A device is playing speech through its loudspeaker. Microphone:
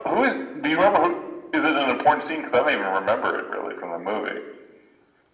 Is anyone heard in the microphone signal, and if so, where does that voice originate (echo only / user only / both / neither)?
echo only